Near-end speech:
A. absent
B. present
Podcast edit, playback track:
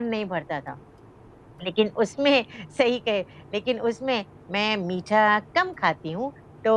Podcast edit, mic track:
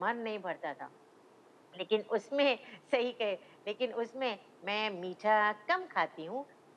A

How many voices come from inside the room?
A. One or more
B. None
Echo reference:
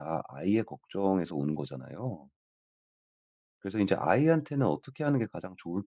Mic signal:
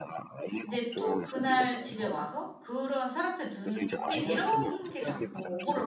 A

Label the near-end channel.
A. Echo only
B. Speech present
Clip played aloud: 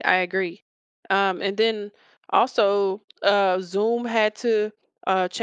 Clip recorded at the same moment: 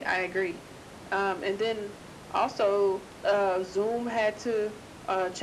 A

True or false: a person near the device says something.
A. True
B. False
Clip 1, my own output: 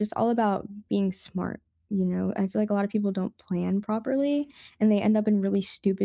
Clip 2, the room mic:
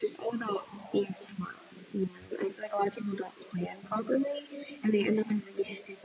B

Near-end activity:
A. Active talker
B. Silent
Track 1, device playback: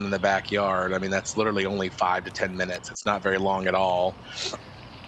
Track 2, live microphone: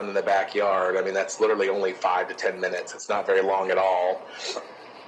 B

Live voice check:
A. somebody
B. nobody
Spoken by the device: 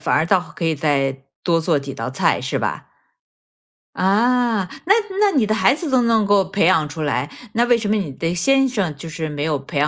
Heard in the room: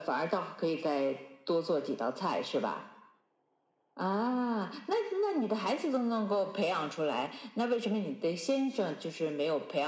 B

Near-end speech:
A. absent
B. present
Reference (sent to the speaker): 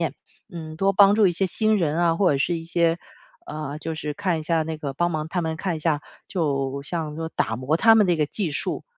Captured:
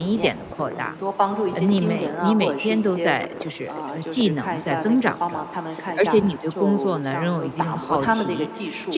B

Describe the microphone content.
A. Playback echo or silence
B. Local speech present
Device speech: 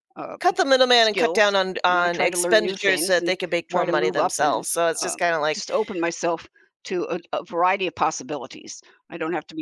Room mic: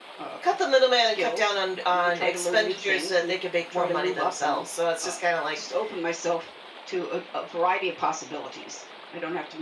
A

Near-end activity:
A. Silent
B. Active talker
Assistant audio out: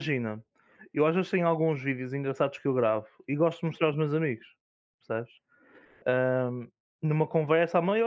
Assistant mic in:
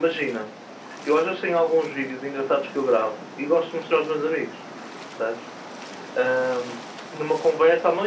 A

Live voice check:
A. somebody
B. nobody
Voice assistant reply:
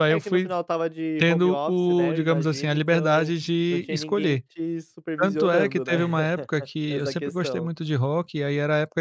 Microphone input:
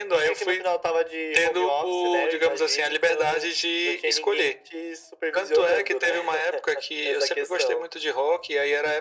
B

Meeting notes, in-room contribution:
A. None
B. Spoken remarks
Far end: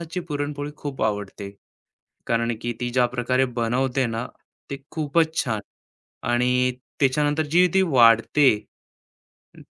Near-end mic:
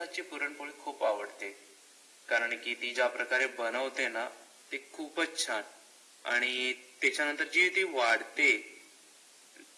A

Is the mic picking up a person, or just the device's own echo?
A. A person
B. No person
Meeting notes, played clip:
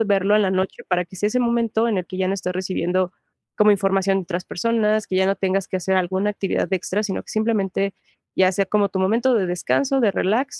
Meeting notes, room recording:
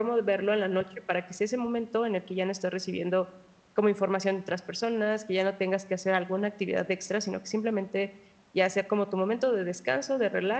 B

